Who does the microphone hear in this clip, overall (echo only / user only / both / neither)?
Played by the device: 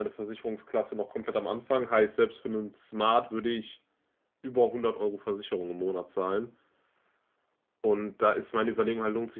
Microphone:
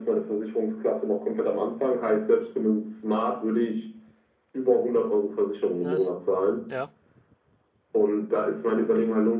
both